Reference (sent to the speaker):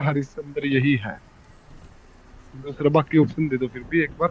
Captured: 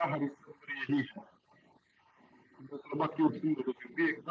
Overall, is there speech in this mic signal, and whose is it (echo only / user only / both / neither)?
echo only